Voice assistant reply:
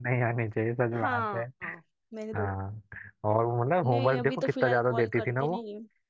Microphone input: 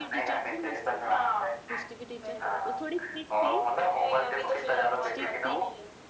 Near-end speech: present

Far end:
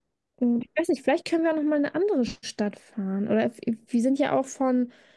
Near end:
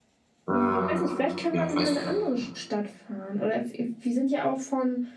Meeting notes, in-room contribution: present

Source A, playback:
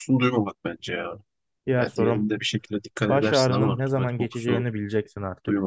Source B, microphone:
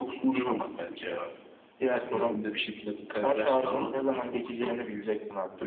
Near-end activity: none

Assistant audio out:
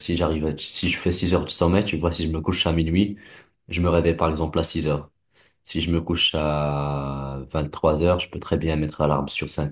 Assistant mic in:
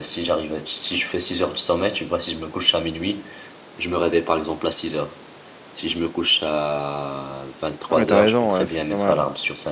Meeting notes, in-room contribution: present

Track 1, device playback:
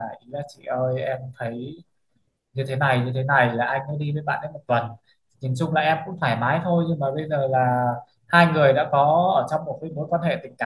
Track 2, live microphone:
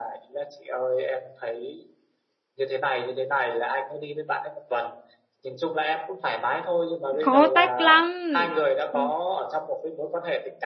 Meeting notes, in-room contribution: present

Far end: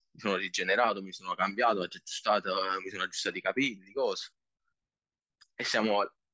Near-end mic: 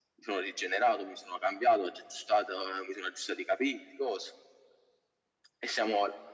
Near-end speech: none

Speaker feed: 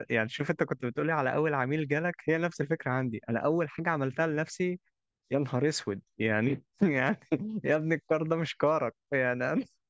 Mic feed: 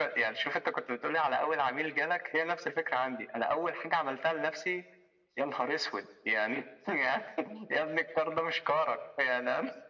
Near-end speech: none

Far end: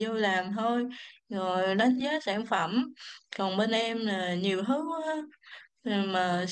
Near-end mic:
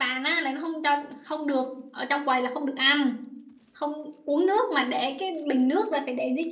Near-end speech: present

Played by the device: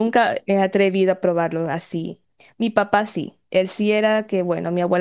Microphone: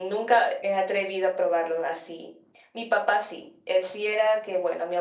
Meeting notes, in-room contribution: none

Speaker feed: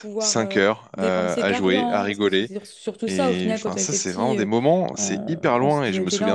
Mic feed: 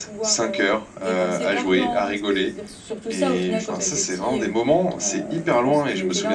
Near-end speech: none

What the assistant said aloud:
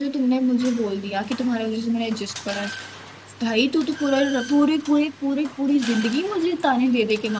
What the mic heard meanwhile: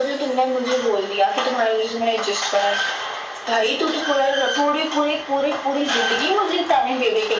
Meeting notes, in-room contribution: none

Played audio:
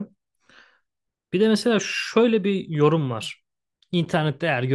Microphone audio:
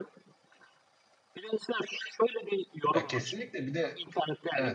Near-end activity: present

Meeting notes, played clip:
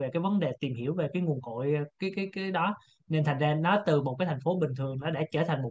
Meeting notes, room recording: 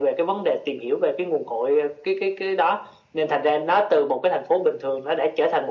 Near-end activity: none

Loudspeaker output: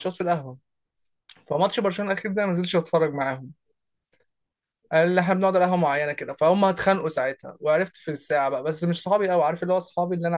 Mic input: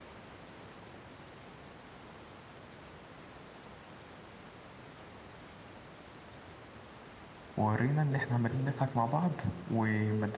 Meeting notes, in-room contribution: present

